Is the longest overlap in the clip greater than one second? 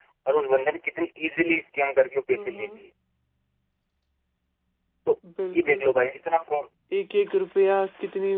No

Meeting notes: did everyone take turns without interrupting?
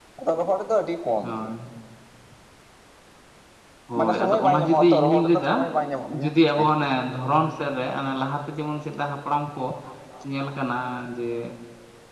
No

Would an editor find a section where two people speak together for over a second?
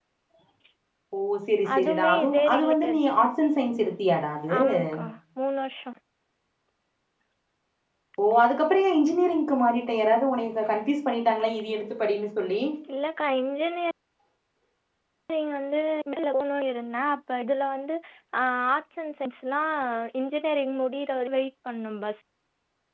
Yes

